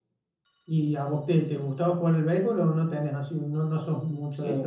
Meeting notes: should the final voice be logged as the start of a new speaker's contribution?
Yes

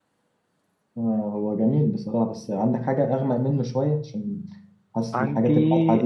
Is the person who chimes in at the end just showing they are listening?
Yes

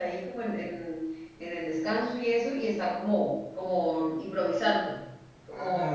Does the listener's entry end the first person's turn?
Yes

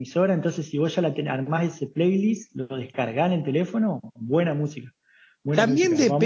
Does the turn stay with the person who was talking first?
No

